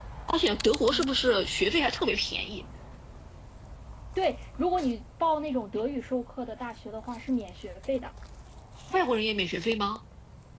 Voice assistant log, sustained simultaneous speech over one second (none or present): none